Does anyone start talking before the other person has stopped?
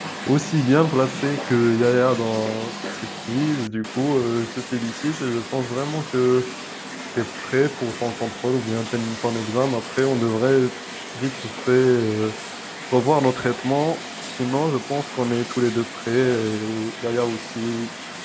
No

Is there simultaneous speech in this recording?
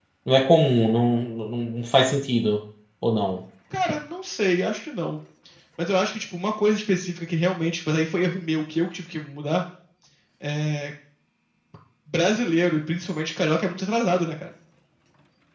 No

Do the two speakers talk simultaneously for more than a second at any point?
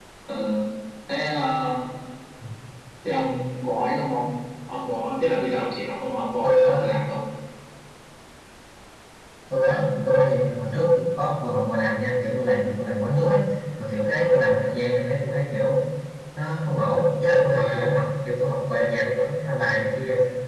No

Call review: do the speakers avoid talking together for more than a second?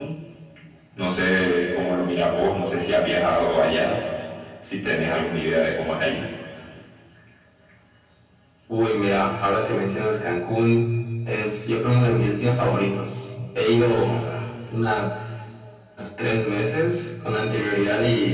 Yes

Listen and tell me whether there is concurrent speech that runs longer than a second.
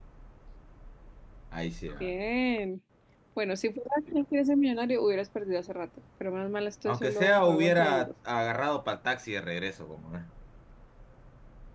Yes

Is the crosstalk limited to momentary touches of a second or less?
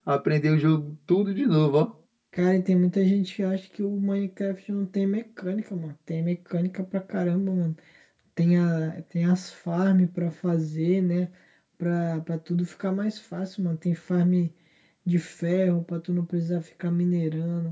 Yes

